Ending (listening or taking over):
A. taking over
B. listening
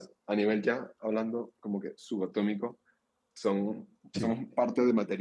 B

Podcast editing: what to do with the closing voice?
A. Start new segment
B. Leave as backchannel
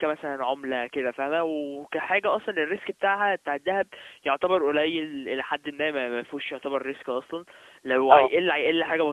B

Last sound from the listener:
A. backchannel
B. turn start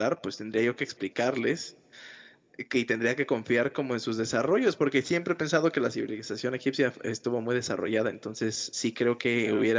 A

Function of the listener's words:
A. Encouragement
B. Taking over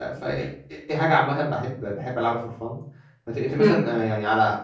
A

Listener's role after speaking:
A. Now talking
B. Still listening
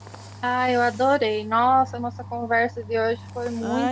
A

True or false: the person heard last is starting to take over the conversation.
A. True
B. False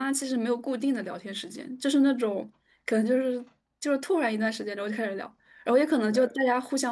B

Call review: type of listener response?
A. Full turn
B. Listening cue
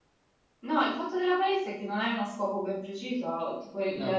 B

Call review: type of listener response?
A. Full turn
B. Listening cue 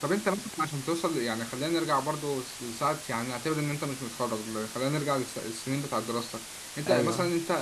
B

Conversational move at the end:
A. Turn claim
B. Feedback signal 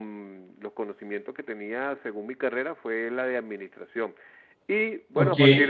B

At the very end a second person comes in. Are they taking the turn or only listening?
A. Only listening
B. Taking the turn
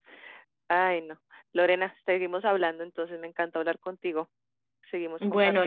B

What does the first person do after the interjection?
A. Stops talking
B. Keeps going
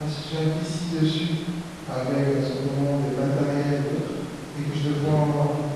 B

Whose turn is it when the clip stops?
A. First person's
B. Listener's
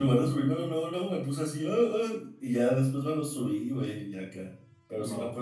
A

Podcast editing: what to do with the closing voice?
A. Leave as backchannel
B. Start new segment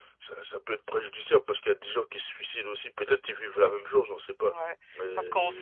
B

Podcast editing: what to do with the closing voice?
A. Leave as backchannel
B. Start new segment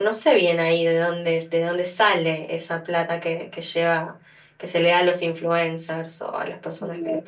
B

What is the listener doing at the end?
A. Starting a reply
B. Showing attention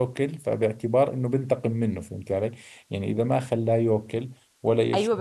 A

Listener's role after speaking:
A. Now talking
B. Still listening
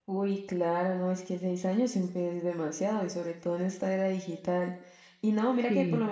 B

